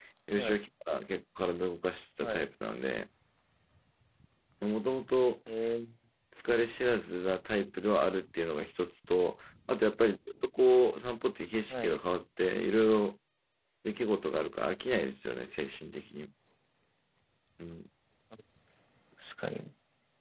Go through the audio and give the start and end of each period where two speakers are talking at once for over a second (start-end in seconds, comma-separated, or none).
none